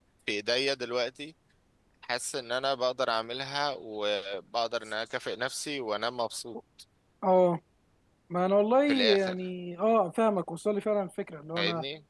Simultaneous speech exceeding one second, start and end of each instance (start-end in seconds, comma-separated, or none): none